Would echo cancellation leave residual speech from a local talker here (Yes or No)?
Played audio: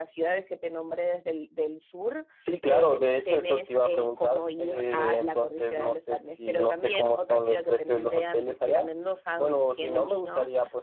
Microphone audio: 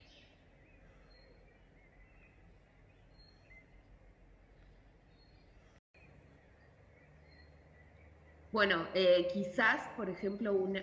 Yes